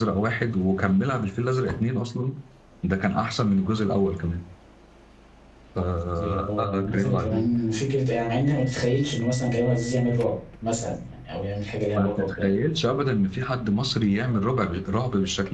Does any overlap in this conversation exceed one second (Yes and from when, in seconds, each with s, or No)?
Yes, from 6.2 s